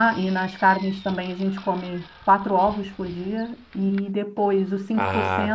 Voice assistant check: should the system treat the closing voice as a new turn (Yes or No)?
No